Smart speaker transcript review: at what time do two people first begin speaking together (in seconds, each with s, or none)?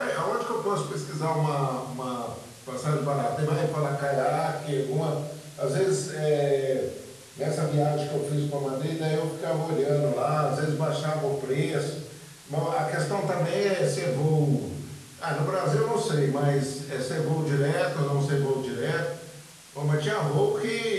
none